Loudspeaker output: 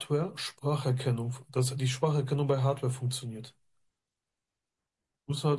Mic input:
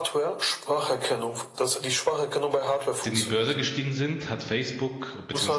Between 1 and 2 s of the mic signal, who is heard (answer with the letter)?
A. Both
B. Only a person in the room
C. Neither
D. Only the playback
D